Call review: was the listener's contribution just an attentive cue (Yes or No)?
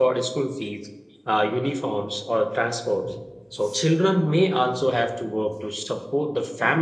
Yes